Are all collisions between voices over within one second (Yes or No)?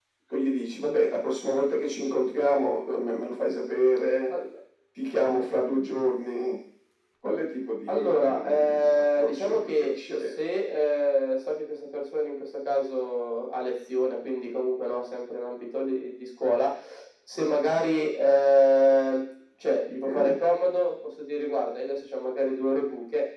No